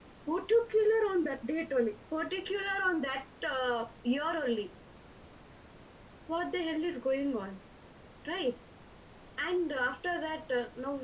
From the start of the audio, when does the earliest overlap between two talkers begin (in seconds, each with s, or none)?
none